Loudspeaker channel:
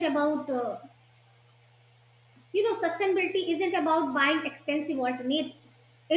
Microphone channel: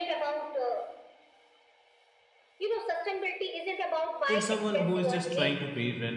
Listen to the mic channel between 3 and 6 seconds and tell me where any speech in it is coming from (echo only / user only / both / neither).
both